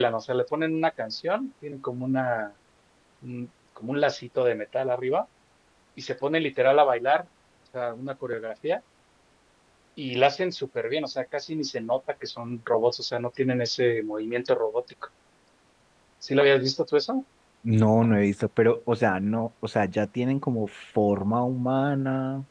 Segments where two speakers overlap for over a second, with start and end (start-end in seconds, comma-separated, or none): none